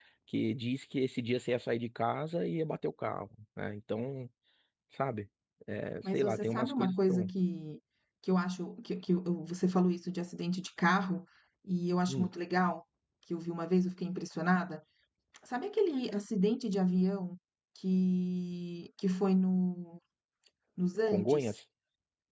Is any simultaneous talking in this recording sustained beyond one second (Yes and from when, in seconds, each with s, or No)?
Yes, from 6.0 s